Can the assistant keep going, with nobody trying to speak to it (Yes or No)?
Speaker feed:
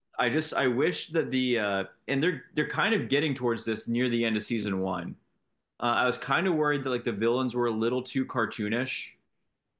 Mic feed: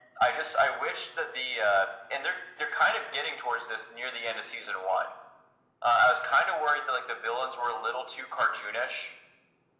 Yes